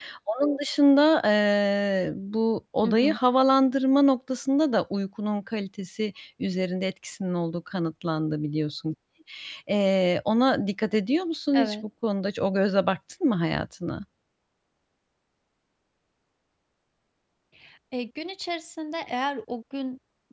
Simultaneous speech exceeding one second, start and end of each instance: none

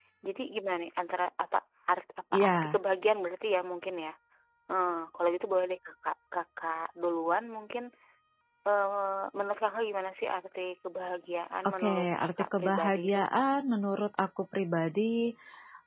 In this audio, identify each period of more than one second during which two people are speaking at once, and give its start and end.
11.7-13.2

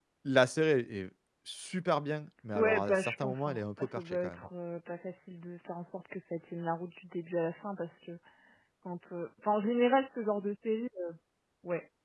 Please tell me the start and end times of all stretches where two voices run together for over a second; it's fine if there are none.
2.5-4.4

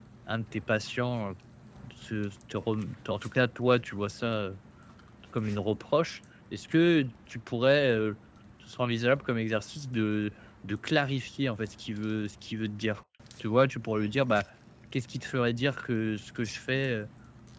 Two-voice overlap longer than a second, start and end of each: none

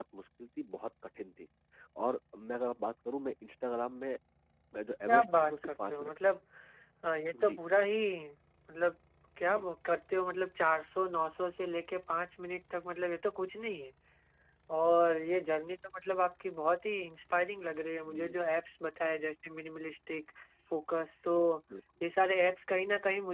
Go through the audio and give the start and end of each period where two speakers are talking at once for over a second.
5.1-6.3

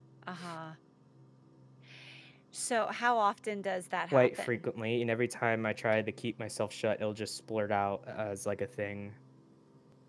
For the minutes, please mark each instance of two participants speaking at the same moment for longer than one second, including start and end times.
none

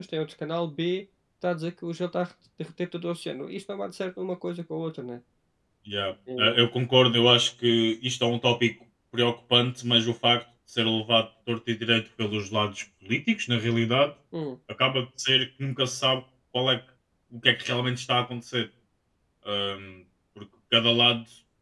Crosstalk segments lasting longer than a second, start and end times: none

